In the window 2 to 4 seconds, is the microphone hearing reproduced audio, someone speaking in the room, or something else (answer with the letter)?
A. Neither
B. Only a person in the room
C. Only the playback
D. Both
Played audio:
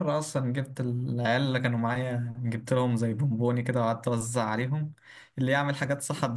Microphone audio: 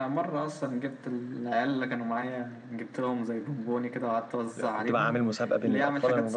C